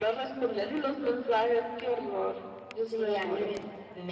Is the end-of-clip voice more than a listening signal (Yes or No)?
Yes